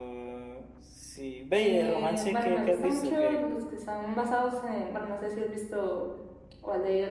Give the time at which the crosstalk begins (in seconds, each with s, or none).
1.5 s